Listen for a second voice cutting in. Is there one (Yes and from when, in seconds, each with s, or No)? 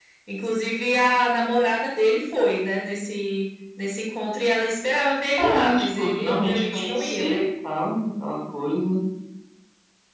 Yes, from 5.4 s